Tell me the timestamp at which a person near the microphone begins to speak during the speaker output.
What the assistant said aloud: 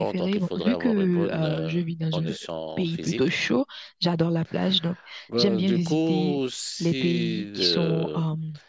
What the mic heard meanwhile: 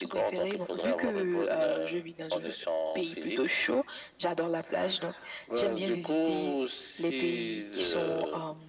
none

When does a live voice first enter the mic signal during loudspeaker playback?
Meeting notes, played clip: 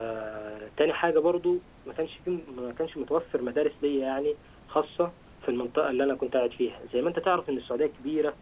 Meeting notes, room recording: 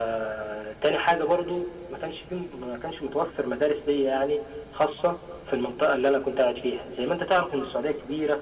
none

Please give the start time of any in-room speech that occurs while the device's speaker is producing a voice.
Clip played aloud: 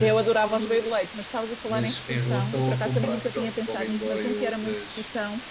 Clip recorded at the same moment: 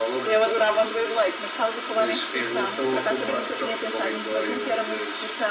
none

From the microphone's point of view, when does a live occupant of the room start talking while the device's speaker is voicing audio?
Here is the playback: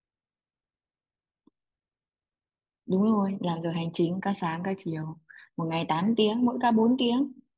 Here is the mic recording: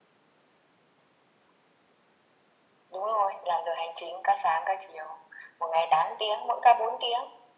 none

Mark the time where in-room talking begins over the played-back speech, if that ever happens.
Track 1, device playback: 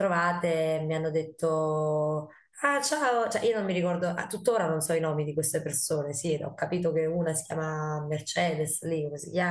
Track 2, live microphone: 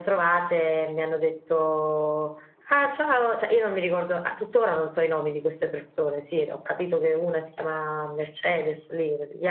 none

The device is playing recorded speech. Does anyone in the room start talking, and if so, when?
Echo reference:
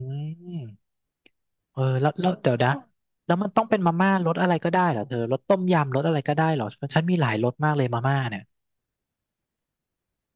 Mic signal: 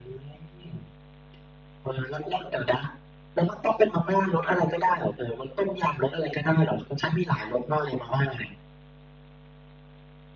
none

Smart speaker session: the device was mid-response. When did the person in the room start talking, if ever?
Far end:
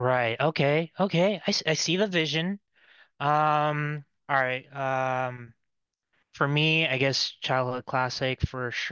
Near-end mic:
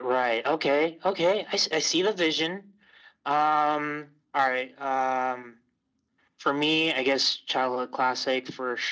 none

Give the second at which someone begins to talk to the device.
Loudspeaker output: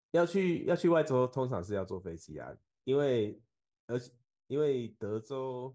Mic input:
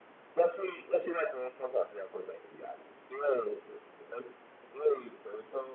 none

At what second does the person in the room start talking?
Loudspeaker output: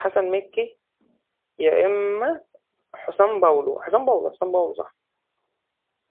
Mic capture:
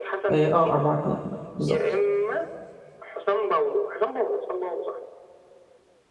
0.3 s

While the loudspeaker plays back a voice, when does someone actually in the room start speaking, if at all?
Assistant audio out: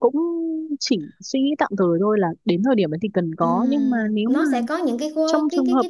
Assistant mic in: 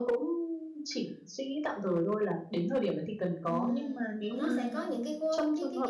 4.2 s

